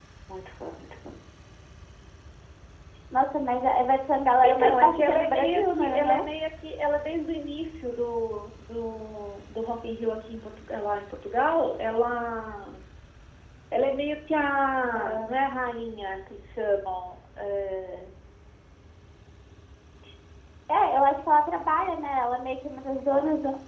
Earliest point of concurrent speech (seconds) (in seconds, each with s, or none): 4.4 s